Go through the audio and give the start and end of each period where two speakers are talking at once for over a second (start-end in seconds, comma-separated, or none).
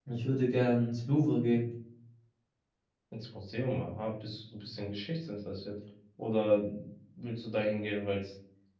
none